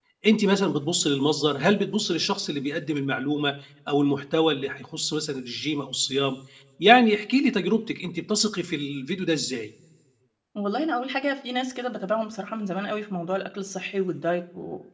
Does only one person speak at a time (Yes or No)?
Yes